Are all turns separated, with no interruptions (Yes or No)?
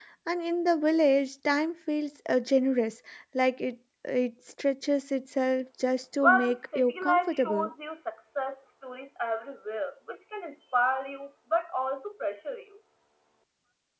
No